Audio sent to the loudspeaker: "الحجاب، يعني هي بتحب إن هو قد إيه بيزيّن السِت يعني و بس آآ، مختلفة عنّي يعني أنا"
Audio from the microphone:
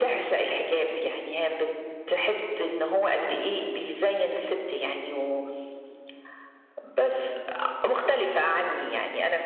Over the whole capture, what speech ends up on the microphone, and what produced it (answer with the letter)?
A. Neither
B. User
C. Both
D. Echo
D